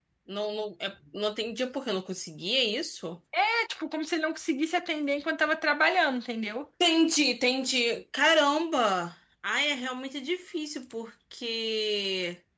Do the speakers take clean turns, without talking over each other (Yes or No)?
Yes